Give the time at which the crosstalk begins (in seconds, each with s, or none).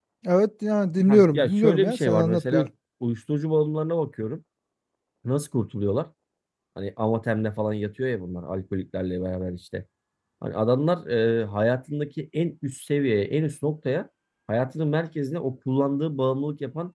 1.1 s